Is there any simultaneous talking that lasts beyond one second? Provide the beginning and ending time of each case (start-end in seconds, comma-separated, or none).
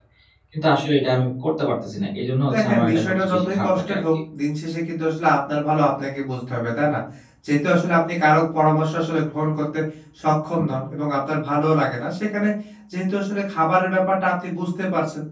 2.5-4.0